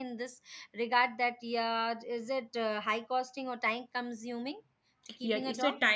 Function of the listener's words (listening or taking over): taking over